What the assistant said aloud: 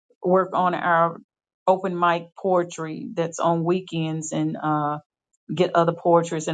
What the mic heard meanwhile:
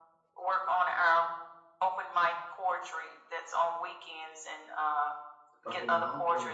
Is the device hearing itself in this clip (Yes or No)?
Yes